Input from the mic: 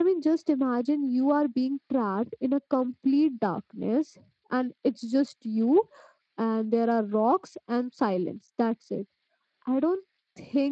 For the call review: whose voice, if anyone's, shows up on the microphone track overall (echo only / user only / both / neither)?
user only